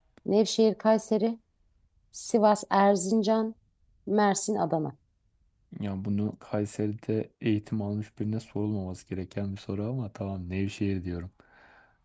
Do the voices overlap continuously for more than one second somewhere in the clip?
No

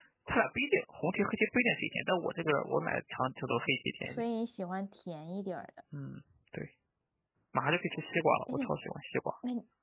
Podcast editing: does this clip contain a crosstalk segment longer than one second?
No

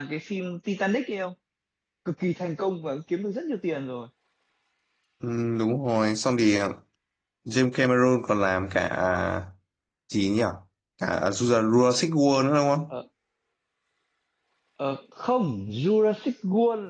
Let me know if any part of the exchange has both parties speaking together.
No

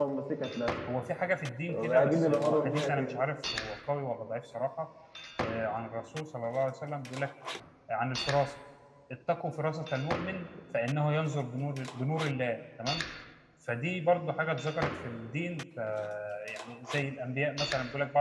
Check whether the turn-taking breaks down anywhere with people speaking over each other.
Yes, from 1.7 s

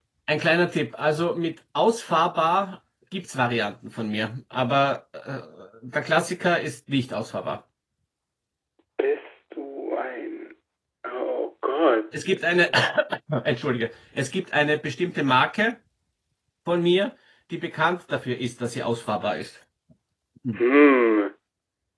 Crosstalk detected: No

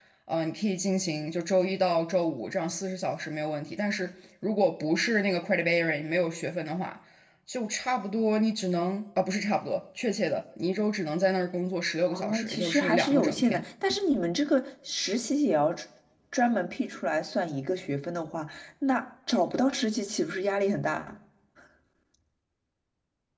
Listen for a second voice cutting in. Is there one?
Yes, from 12.1 s

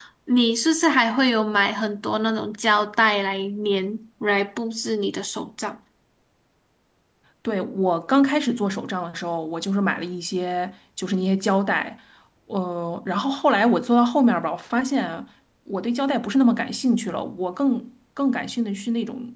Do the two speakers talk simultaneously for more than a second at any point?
No

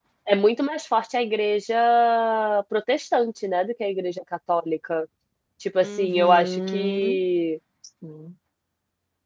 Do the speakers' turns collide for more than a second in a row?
Yes, from 5.8 s

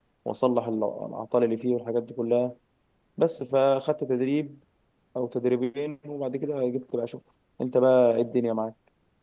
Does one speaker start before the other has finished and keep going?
No

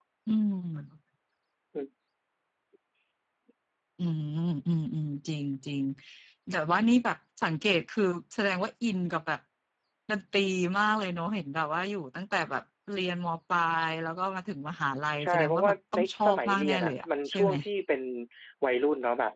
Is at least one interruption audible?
Yes, from 15.2 s

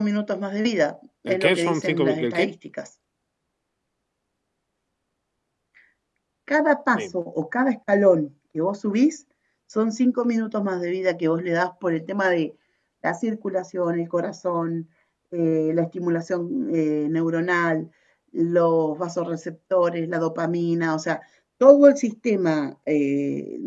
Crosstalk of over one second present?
Yes, from 1.3 s

